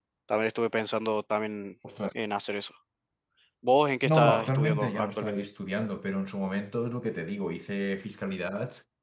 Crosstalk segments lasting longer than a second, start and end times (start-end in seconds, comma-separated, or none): 4.0-5.4